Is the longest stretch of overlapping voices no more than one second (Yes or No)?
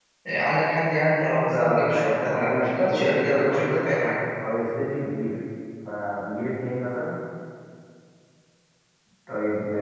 No